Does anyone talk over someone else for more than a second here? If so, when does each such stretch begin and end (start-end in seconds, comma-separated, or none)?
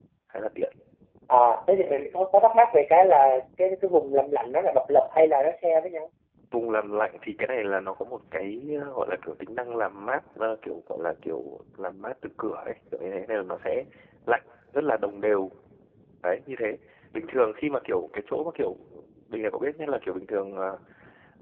none